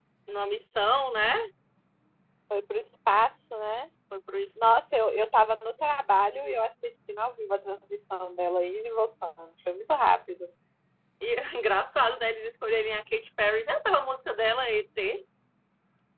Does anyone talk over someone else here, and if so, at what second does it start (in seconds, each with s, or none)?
none